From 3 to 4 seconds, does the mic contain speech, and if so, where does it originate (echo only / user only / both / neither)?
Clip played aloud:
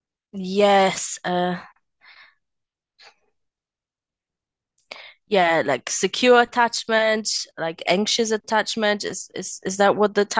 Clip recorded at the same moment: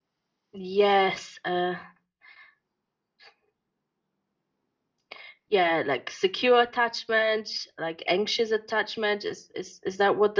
neither